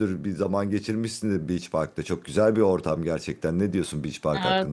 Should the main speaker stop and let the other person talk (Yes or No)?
Yes